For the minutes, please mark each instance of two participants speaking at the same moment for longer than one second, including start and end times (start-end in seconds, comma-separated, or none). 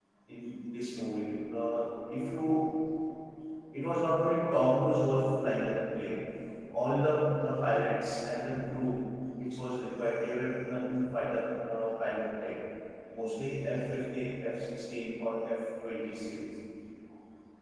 none